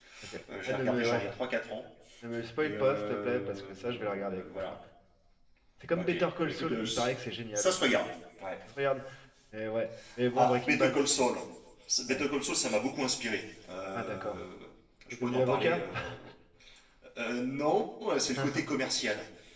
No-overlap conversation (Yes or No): No